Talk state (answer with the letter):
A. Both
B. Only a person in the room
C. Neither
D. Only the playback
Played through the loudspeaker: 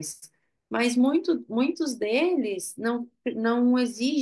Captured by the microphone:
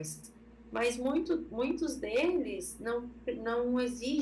D